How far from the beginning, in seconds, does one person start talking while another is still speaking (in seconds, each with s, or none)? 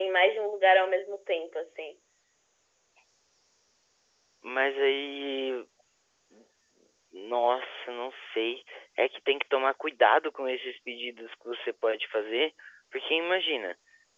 none